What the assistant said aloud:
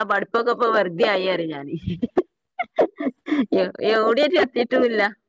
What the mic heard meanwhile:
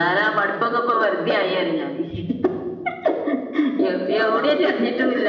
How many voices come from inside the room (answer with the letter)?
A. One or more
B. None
A